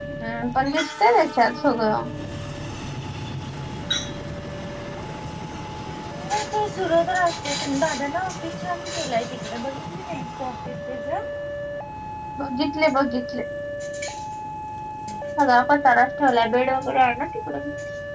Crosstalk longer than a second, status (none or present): none